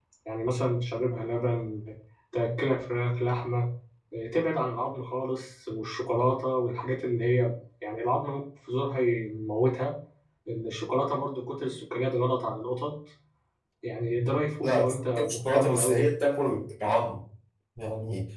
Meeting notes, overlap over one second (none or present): present